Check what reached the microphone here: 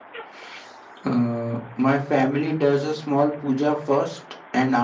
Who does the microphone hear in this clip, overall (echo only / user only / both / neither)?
user only